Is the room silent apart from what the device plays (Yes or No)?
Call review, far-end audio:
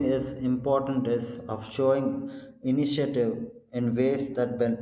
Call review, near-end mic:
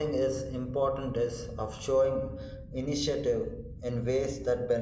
Yes